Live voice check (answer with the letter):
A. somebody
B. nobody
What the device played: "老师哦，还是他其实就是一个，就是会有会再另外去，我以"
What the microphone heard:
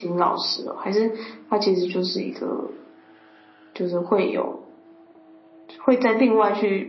B